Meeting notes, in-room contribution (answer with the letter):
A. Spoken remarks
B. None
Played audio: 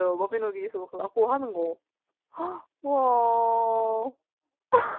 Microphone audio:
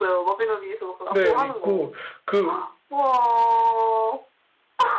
A